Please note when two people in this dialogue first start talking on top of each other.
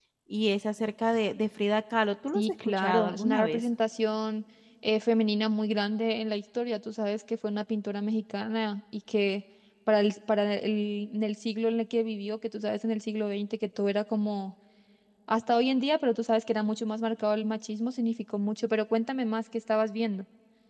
2.3 s

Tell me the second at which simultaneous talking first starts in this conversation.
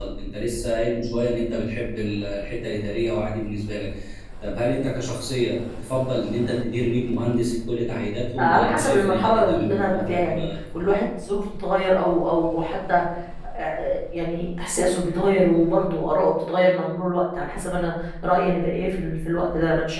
8.4 s

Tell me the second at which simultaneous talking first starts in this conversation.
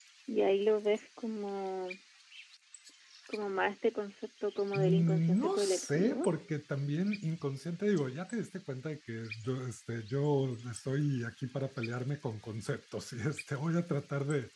4.8 s

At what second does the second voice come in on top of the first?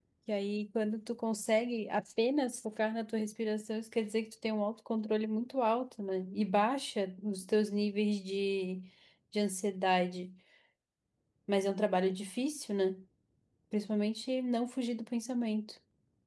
none

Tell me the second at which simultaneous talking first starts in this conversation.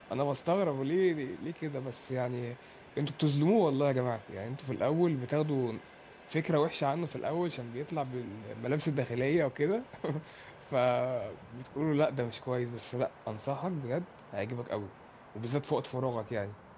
none

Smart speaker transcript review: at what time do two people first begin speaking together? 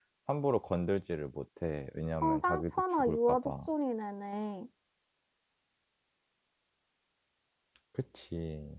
2.2 s

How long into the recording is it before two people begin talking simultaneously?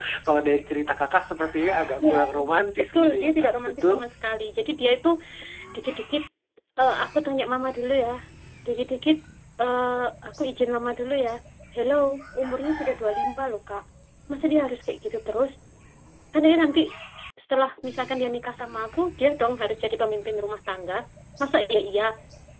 2.0 s

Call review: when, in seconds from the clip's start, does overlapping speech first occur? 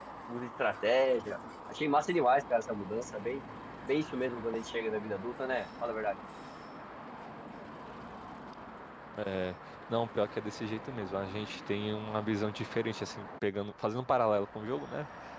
none

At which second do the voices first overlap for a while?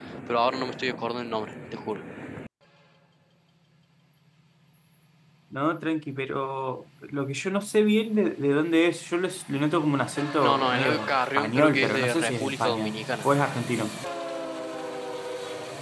10.4 s

